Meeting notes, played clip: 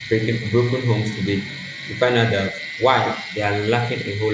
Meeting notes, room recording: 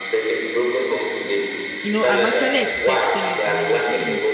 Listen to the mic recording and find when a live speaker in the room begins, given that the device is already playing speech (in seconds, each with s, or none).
1.8 s